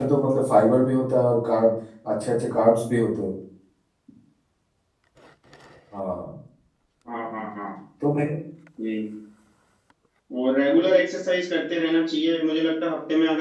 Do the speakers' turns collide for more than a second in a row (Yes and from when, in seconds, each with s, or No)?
No